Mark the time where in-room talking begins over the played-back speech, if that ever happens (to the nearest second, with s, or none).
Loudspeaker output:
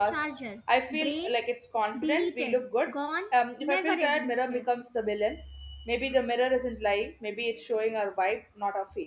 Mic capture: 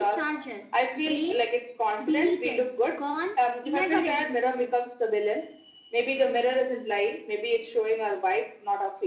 none